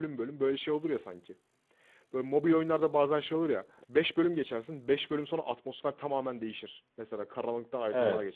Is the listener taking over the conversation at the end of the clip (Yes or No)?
No